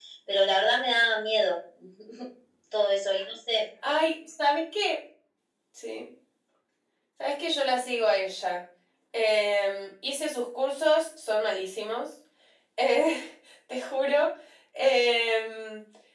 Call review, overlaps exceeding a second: none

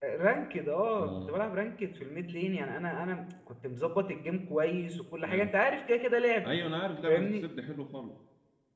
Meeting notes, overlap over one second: none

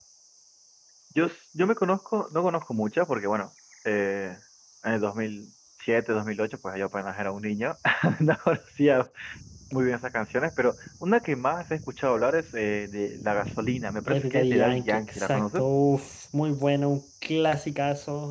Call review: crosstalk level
present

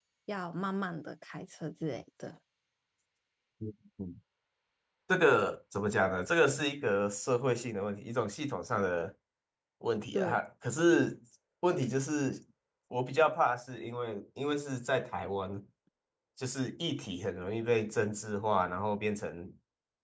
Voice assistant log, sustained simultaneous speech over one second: none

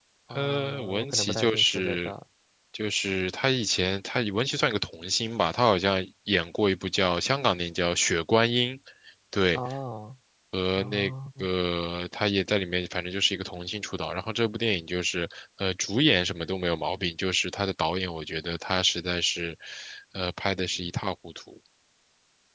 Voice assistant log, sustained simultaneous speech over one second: present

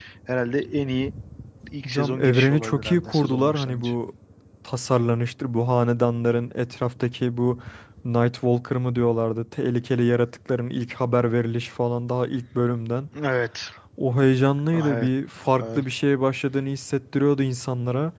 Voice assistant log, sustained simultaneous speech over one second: present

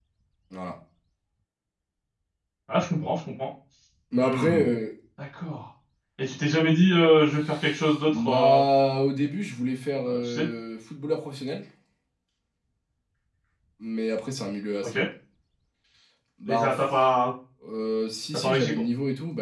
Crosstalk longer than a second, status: none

